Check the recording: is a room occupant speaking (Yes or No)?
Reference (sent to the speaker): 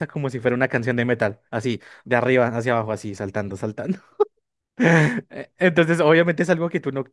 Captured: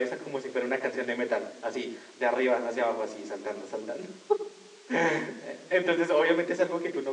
No